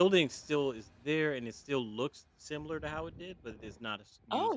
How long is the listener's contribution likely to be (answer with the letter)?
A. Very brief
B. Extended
B